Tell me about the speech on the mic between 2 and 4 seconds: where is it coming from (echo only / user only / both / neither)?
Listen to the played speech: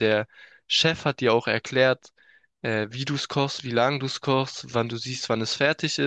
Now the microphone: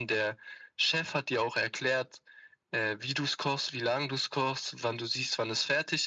echo only